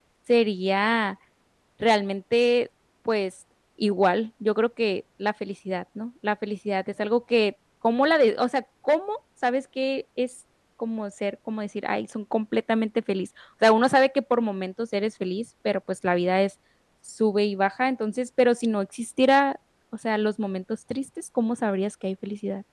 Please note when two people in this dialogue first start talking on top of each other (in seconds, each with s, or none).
none